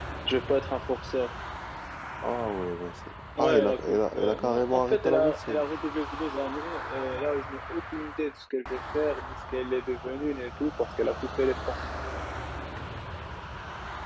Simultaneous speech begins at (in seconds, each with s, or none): 3.4 s